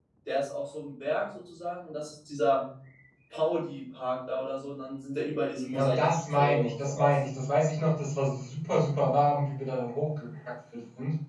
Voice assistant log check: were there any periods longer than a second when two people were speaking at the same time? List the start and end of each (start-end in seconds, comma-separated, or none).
5.7-7.1